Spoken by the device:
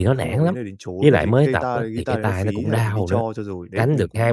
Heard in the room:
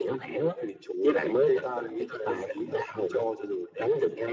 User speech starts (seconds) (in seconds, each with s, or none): none